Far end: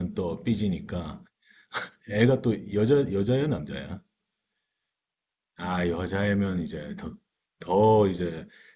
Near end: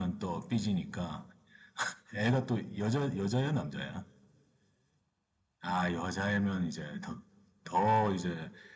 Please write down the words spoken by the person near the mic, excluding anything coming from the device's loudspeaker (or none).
none